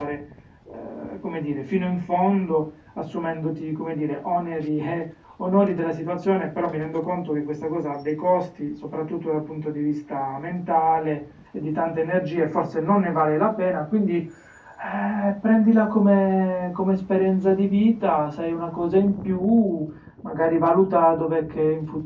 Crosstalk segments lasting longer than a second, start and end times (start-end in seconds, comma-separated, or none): none